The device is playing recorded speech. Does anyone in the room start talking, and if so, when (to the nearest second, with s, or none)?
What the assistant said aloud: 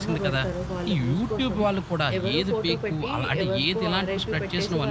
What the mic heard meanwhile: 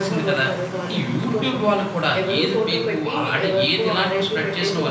none